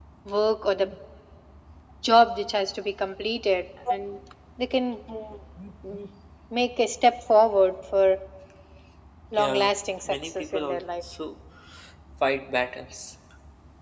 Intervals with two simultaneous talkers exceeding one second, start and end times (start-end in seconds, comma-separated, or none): 9.4-10.8